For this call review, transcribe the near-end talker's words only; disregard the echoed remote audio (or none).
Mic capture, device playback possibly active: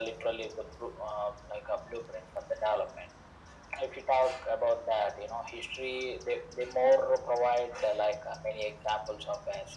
none